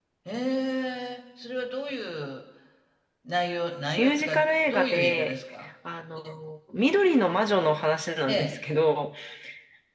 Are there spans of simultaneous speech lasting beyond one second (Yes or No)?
Yes